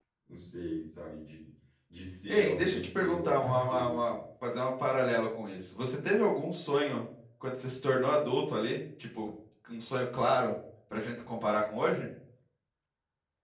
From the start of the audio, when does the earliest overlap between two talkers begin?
2.3 s

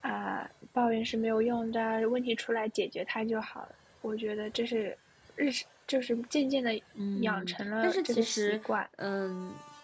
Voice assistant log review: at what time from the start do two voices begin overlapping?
7.2 s

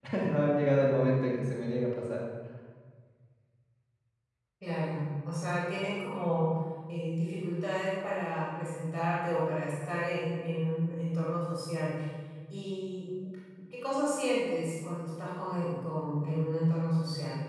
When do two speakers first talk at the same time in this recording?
none

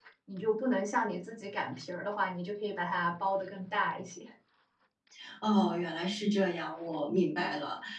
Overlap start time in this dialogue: none

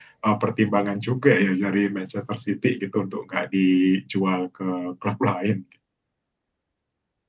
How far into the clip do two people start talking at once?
none

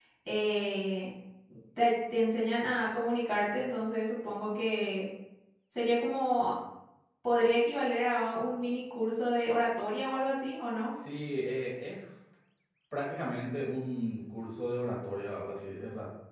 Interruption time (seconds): none

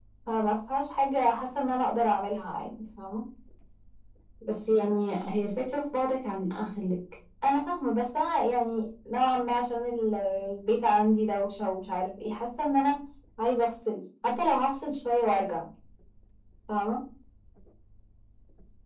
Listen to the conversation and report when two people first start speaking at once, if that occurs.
none

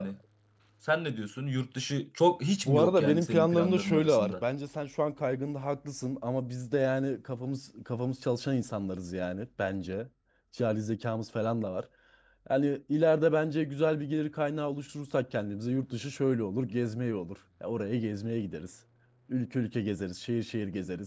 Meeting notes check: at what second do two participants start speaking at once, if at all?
2.6 s

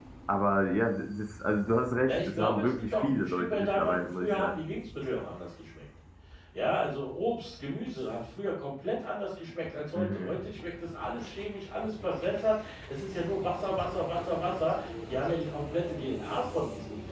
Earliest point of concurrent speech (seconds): 2.1 s

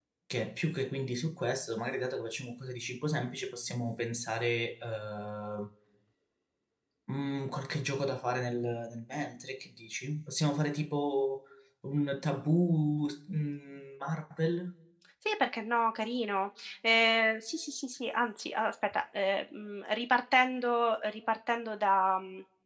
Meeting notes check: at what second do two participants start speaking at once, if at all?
none

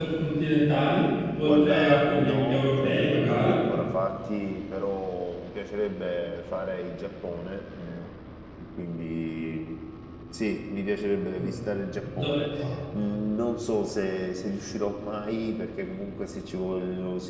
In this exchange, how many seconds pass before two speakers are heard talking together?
1.4 s

